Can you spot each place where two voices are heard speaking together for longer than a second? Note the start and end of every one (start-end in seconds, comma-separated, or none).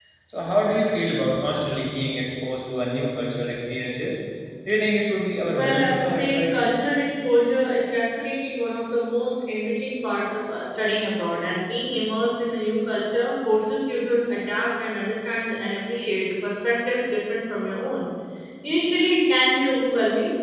5.5-6.7